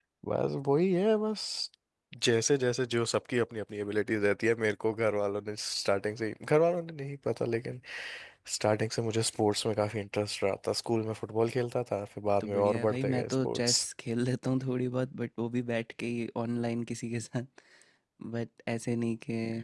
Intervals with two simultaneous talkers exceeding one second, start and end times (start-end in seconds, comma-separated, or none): 12.4-13.8